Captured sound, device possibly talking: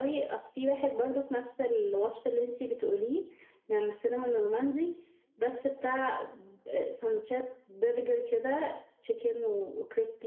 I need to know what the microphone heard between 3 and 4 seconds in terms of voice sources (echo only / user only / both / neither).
echo only